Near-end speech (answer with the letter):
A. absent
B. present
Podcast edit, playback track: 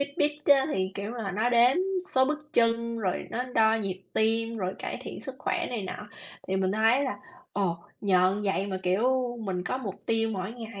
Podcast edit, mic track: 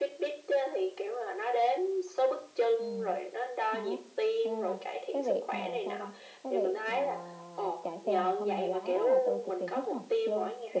B